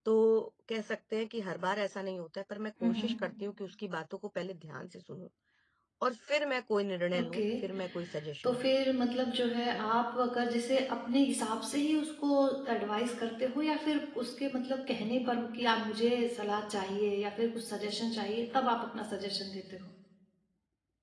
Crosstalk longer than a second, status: none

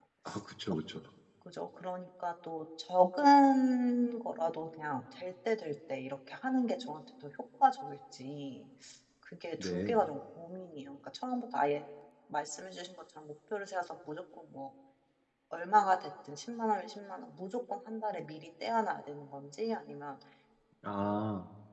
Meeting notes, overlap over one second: none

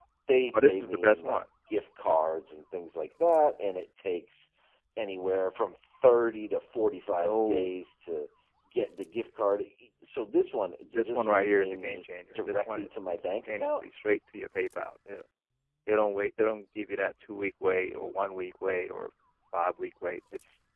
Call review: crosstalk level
present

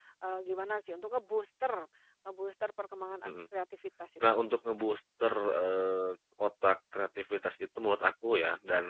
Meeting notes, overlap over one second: none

